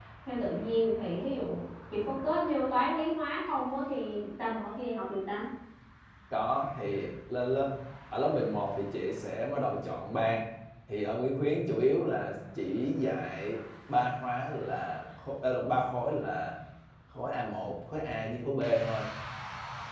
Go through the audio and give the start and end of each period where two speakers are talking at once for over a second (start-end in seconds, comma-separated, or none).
none